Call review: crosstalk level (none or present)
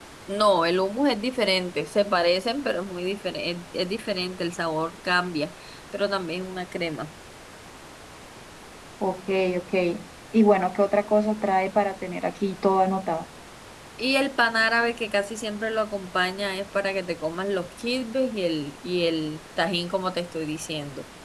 none